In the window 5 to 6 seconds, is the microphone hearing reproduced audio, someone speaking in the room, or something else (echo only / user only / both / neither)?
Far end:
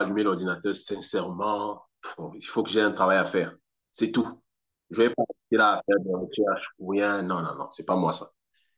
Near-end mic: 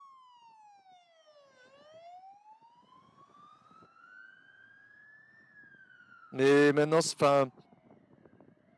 neither